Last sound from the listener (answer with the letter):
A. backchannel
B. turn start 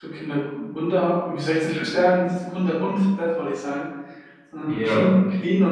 A